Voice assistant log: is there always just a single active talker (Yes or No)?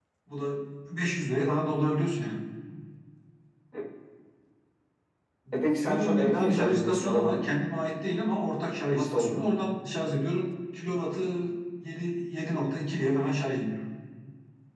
No